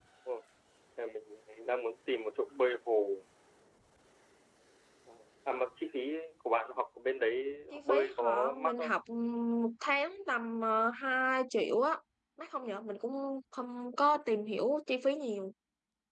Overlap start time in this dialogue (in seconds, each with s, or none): 7.7 s